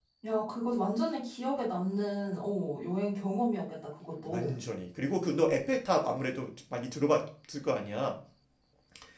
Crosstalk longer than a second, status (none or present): none